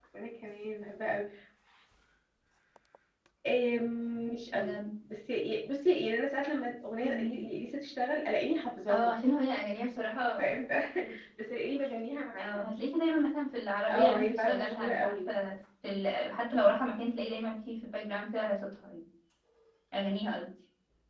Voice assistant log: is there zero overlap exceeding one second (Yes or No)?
No